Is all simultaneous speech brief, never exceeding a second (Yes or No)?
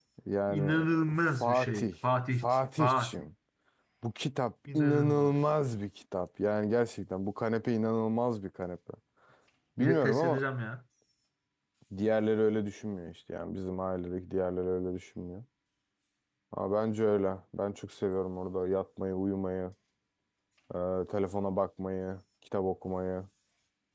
No